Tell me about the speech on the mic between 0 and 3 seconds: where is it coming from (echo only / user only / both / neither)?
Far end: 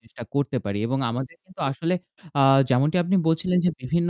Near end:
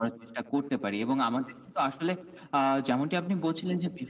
echo only